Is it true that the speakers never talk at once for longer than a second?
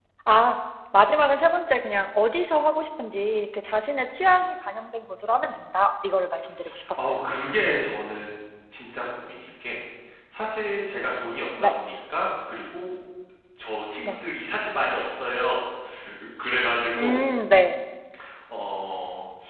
Yes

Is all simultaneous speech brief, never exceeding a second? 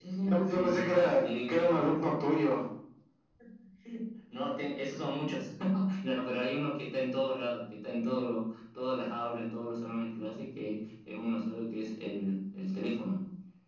No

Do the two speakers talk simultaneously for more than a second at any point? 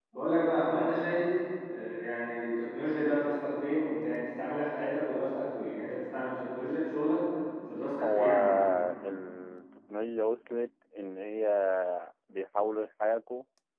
No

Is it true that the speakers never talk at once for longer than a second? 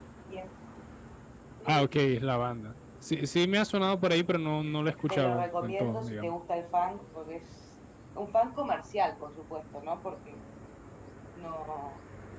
No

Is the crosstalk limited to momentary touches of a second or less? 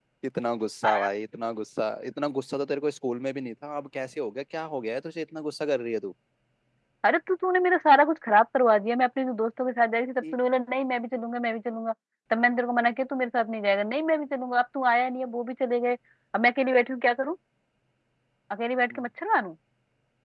Yes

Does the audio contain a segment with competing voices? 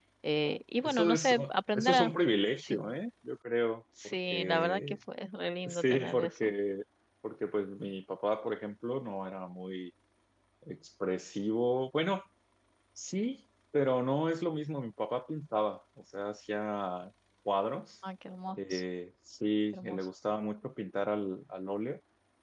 Yes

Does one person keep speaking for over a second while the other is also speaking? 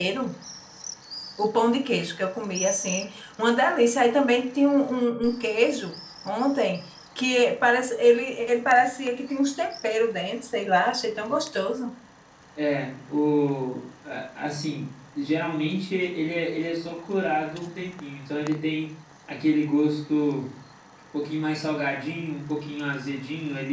No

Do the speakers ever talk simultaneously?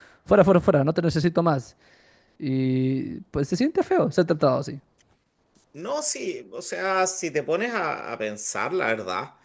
No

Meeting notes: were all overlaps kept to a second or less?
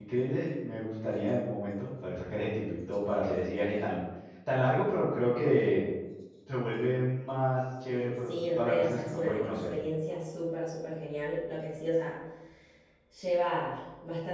No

